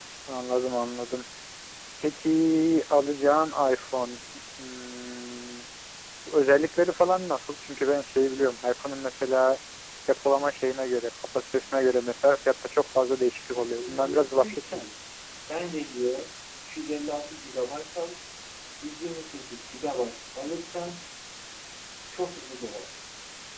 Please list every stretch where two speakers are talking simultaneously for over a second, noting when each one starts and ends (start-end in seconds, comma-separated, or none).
13.5-14.9